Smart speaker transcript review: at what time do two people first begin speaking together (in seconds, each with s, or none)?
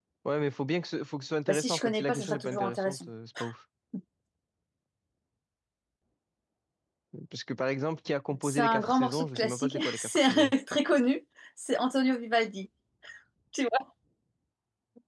1.5 s